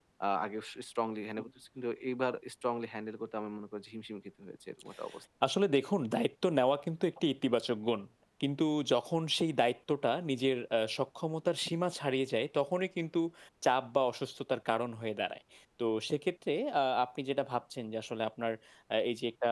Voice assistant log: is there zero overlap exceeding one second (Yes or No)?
Yes